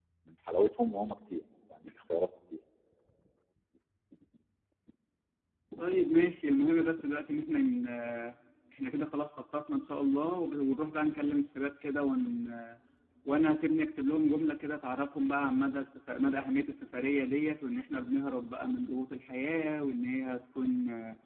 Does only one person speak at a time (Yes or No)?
Yes